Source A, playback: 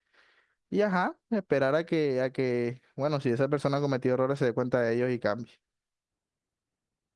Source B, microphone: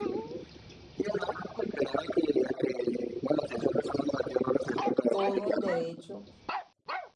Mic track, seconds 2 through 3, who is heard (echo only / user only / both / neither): echo only